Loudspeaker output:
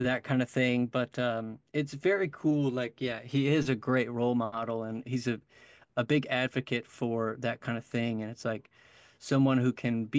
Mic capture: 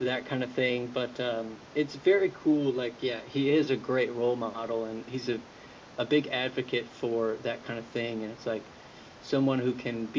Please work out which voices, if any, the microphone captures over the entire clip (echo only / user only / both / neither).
echo only